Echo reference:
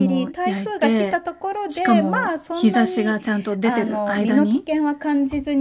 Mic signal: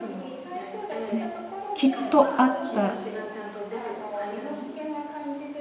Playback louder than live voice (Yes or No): No